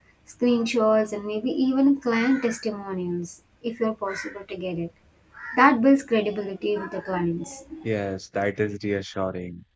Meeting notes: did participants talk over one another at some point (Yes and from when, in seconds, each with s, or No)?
No